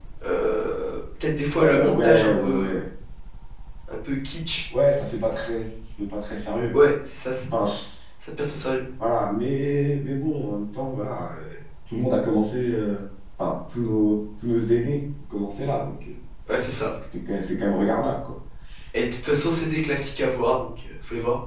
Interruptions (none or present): present